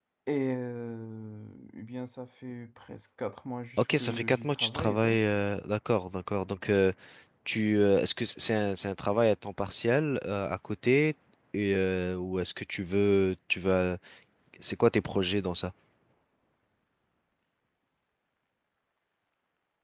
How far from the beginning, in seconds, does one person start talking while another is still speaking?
3.8 s

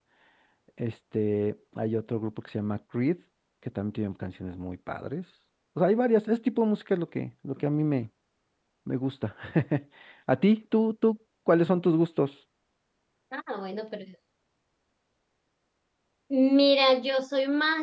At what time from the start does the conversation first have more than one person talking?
none

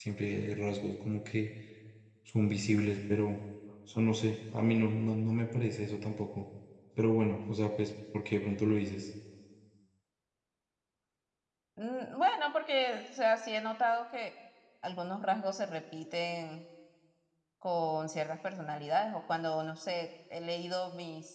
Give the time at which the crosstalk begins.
none

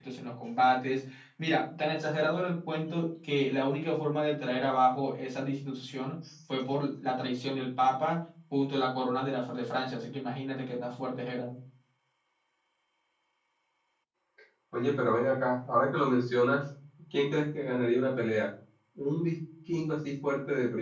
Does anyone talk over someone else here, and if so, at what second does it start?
none

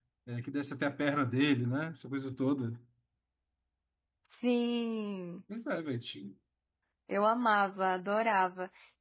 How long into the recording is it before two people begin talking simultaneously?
none

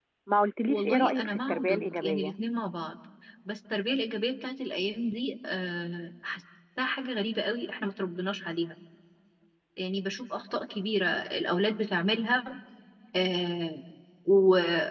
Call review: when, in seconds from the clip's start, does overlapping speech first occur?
0.7 s

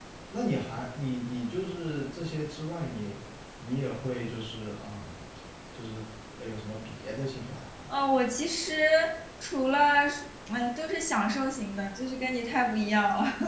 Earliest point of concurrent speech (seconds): none

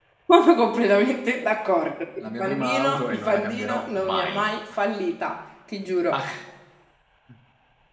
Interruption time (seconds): 2.2 s

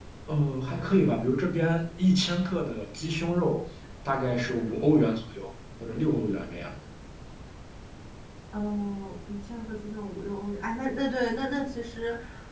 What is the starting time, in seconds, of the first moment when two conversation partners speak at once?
none

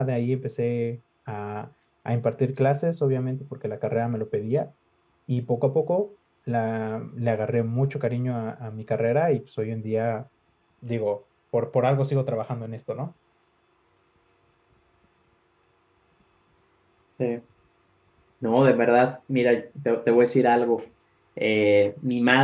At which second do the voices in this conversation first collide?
none

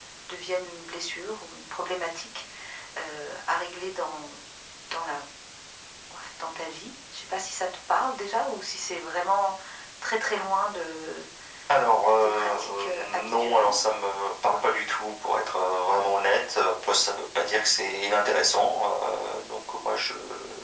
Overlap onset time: 12.1 s

